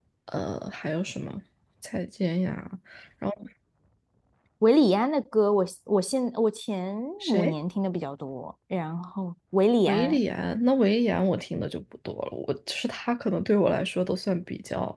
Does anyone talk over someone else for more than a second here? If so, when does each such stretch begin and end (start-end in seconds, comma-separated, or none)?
none